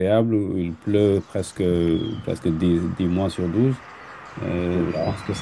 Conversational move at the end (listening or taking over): listening